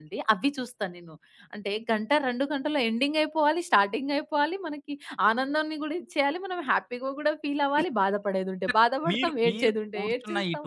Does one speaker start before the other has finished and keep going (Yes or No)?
Yes